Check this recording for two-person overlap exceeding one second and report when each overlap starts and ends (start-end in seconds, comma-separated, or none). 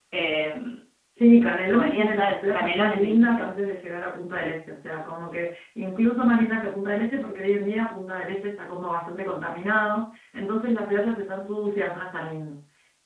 1.7-3.5